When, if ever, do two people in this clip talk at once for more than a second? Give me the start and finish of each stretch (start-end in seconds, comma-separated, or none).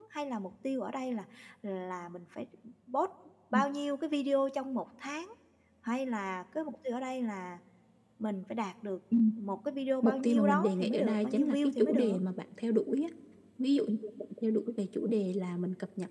10.0-12.2